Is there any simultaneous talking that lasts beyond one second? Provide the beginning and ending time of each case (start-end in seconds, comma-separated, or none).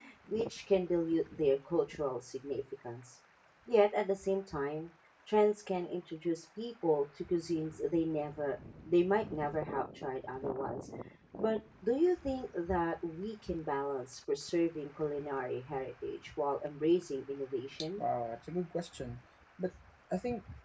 none